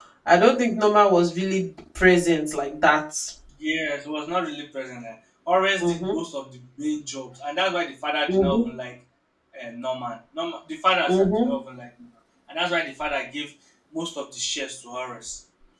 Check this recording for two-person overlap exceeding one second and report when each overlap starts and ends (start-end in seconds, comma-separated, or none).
none